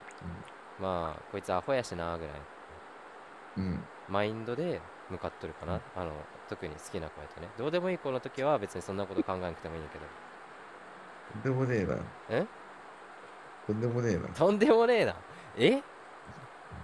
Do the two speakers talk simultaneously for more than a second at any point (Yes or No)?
No